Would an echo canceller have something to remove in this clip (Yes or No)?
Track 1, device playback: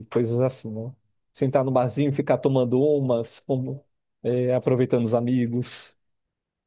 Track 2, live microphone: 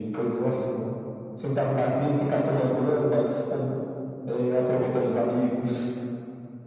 Yes